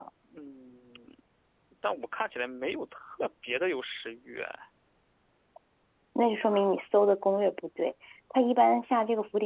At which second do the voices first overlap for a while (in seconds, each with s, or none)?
none